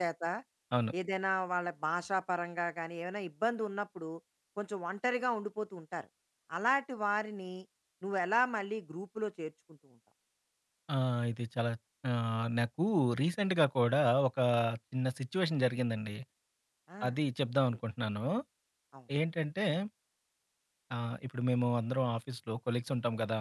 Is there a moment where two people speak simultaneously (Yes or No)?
No